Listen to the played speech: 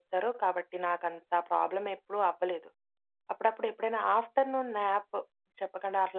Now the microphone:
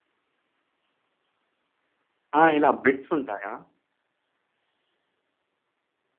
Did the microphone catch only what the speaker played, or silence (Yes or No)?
No